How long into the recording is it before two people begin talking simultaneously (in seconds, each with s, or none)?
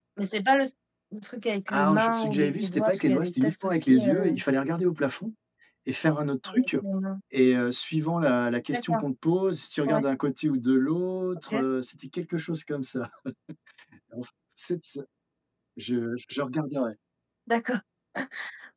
1.7 s